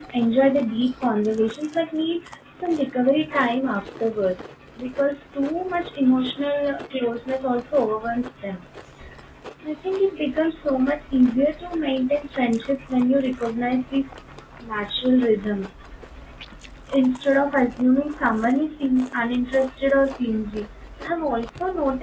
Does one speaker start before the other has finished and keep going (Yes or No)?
No